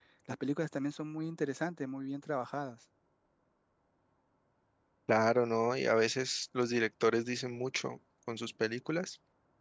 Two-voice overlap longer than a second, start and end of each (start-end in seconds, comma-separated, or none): none